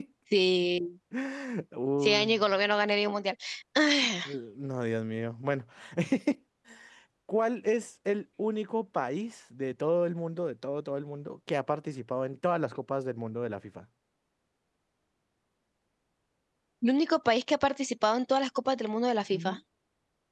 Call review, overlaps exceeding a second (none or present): none